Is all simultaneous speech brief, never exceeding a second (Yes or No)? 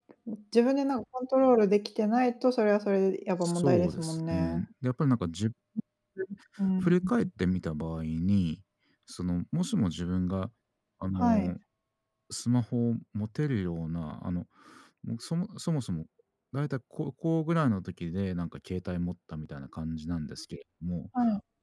No